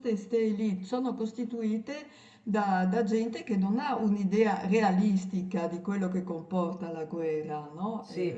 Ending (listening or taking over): taking over